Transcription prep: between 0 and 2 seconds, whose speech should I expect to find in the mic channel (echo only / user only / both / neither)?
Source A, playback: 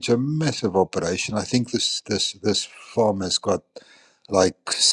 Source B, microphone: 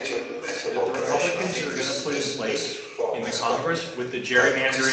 both